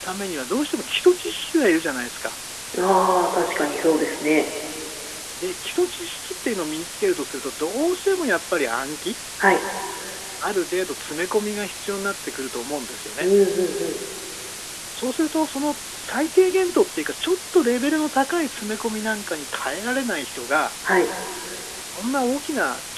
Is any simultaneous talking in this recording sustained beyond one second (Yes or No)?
No